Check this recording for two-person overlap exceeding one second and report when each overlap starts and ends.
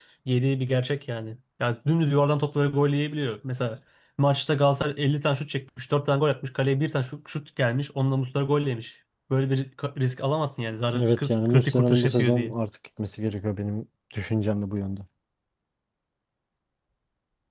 10.9-12.5

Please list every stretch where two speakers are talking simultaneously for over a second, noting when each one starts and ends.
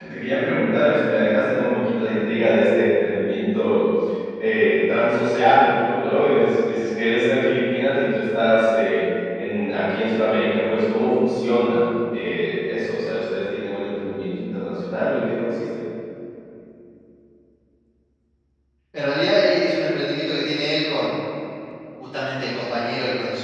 none

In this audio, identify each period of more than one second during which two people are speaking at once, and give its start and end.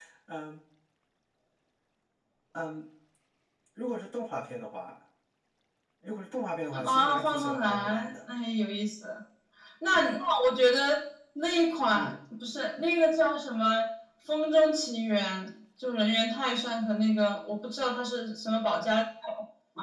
6.7-8.1

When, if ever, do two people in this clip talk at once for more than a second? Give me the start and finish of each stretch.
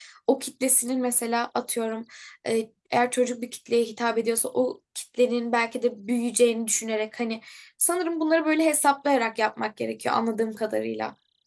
none

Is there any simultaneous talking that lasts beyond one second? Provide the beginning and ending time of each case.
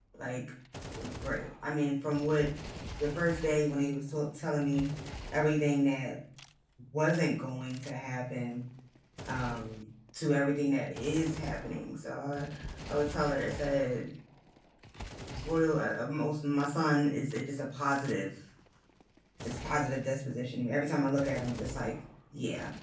none

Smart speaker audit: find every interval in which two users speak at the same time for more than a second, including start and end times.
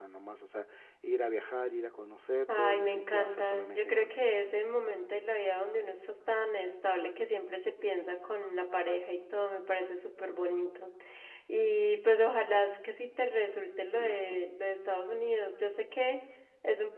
2.5-4.3

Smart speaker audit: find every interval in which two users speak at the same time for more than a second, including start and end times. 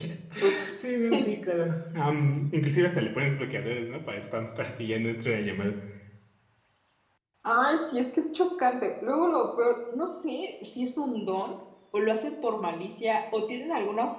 none

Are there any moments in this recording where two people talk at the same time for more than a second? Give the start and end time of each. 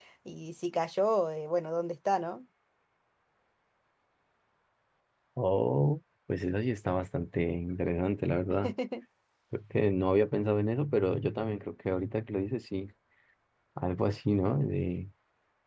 none

